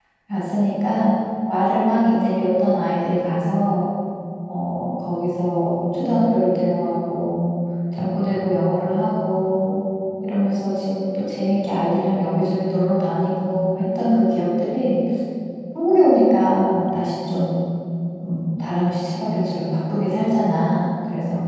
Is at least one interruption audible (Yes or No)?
No